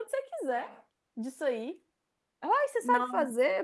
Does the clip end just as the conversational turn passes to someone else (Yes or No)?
No